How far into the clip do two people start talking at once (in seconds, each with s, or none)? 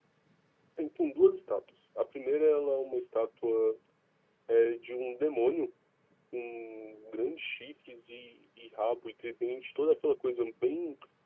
none